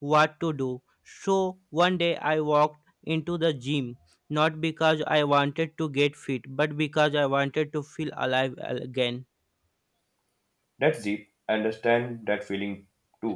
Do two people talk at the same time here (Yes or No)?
No